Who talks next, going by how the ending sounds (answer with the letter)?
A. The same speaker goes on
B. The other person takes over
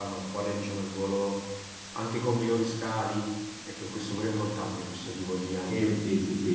B